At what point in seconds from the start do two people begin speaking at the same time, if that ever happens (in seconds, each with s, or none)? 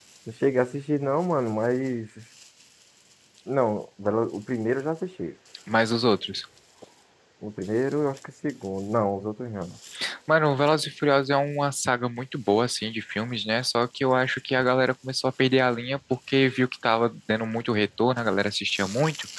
none